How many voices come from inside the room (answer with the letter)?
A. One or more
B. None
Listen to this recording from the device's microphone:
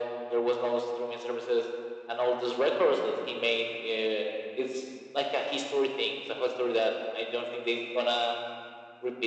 B